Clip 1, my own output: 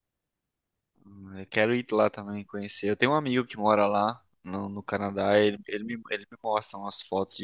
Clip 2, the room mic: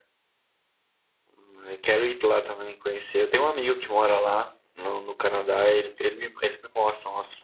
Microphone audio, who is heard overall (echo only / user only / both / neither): echo only